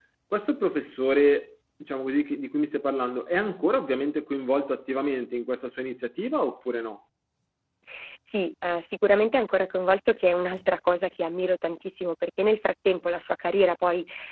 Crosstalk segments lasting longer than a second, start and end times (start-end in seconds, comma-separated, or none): none